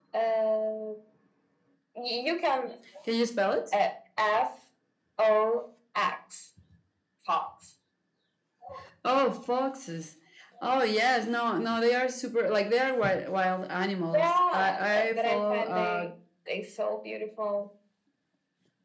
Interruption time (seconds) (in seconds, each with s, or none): 14.1 s